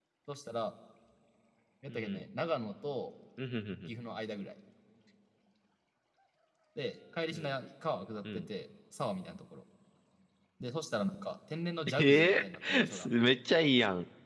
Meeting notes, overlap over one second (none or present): present